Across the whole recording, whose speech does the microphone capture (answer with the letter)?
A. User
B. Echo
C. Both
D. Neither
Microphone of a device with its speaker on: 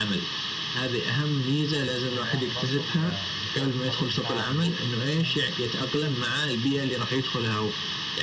C